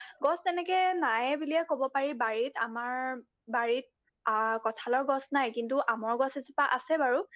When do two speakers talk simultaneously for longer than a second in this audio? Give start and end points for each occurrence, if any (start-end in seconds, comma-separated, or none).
none